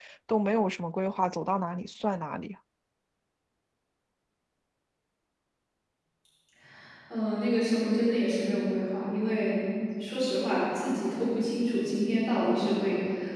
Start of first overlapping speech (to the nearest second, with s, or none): none